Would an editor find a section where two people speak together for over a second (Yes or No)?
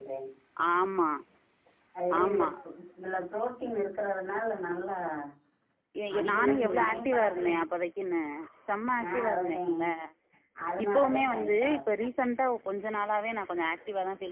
Yes